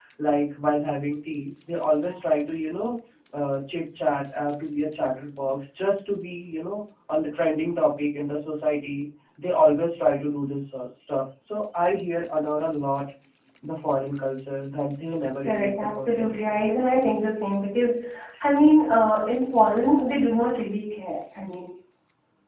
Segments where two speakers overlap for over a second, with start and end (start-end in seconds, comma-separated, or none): 15.5-16.7